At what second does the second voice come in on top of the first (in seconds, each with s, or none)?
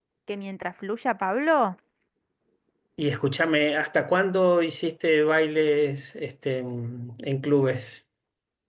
none